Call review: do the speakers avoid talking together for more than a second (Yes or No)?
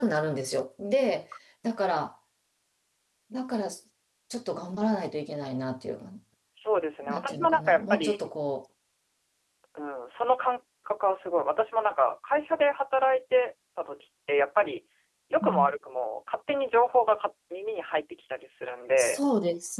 No